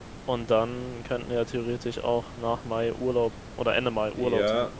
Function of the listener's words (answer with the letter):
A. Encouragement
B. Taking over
B